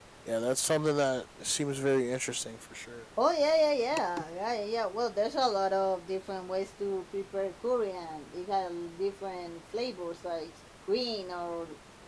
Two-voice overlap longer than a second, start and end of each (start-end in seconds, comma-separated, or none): none